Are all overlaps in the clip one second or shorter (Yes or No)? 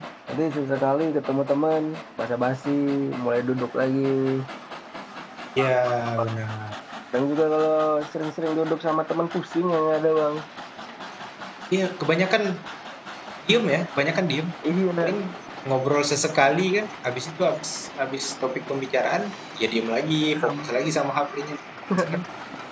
Yes